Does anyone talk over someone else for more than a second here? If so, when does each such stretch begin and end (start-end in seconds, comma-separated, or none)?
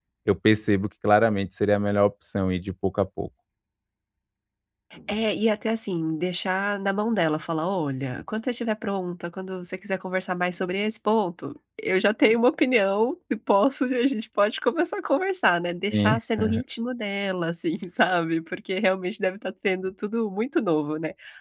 none